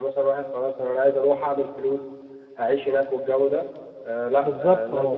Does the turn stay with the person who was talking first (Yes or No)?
Yes